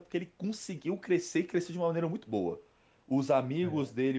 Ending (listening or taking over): listening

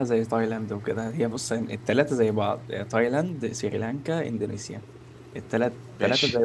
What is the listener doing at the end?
listening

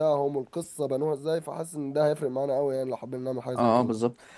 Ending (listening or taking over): taking over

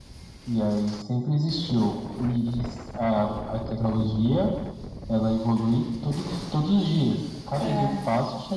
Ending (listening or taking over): listening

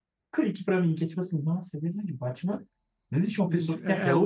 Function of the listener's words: taking over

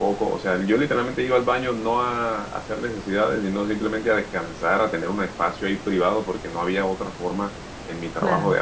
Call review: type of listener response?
listening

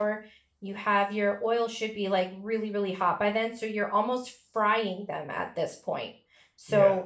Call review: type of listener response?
listening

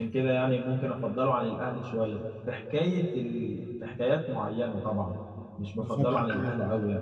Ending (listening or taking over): taking over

